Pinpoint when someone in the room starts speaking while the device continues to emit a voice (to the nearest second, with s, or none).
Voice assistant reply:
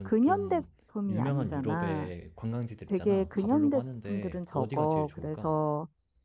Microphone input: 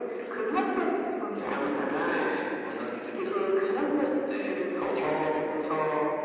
none